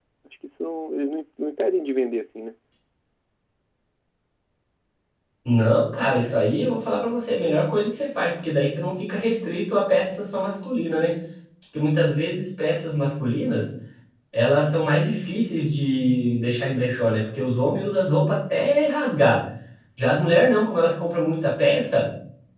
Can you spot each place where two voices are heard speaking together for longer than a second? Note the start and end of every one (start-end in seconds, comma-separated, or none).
none